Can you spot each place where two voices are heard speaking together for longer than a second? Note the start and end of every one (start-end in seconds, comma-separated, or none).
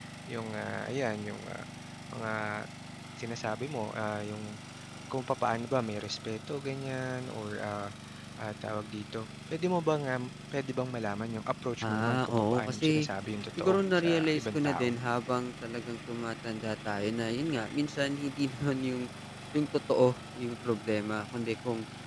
11.8-13.1, 13.6-14.9